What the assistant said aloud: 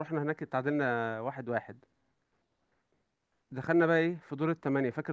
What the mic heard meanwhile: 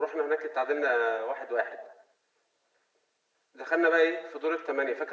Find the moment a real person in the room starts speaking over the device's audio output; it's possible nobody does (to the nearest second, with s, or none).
none